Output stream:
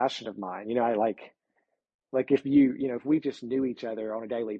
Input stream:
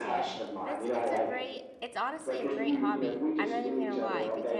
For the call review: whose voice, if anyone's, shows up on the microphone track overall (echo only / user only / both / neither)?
both